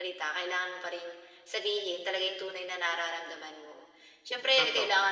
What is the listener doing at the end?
listening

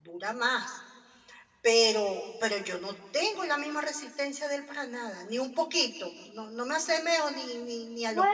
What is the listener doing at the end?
taking over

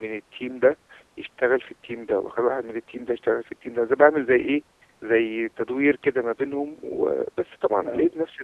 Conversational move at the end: listening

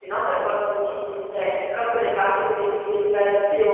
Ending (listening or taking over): taking over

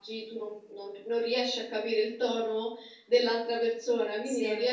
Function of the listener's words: listening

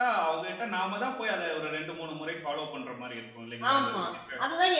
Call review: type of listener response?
taking over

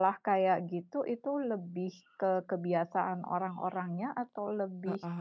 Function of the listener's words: listening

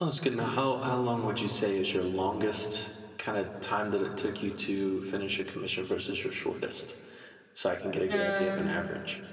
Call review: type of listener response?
taking over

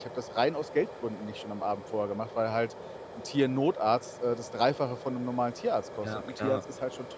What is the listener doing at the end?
listening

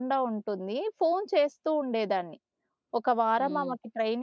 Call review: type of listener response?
listening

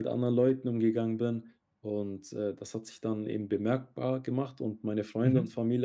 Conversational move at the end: listening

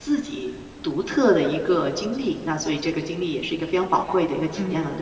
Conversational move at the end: taking over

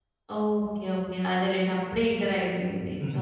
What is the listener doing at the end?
taking over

